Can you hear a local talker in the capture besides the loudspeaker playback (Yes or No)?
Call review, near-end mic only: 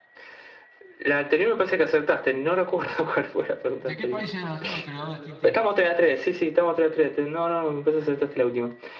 Yes